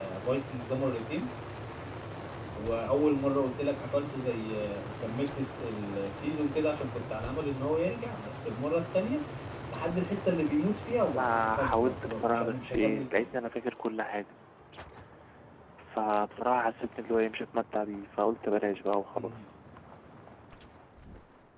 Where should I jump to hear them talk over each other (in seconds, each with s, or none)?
11.1 s